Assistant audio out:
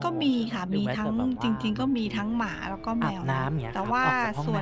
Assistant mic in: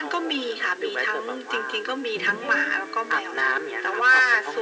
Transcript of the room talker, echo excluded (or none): แล้วก็อย่า